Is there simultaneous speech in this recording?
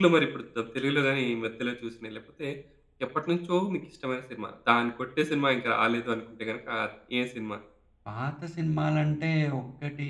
No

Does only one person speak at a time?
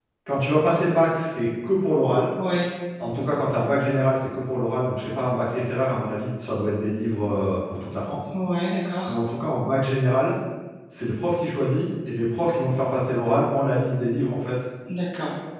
Yes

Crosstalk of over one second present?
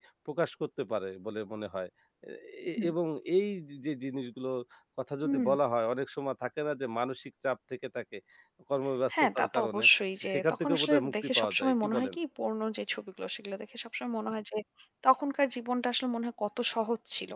Yes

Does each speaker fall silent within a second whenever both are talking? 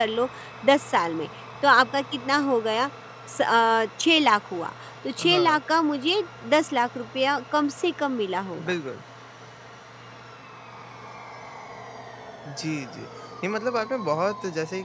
Yes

